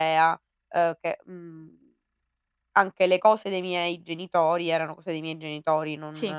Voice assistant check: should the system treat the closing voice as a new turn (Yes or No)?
No